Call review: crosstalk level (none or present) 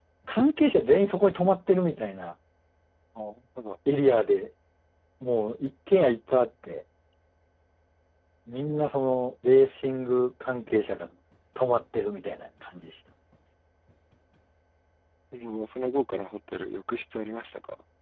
none